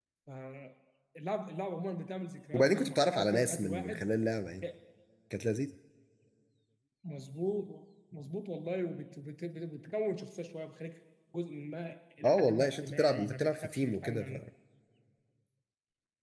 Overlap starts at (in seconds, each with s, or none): 2.5 s